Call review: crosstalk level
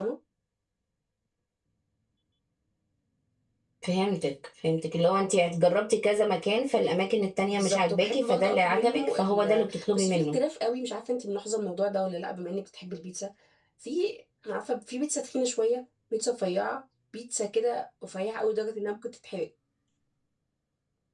present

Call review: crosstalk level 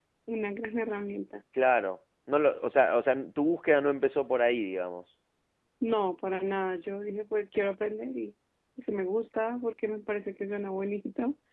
none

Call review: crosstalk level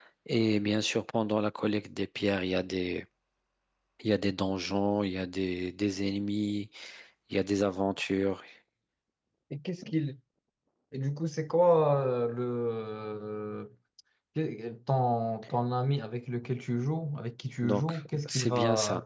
present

